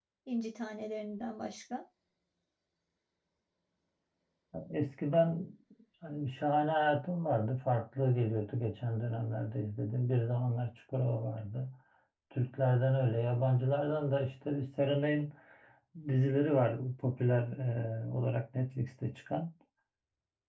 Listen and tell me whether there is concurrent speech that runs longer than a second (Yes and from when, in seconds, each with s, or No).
No